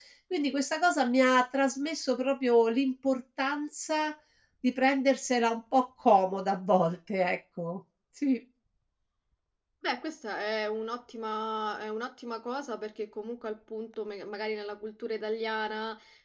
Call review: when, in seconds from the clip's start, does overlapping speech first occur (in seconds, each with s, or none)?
none